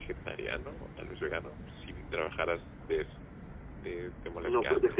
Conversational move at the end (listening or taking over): taking over